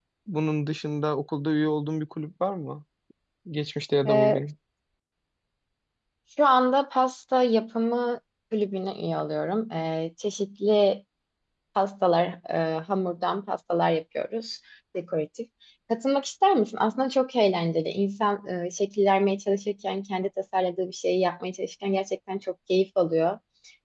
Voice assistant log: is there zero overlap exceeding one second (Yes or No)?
Yes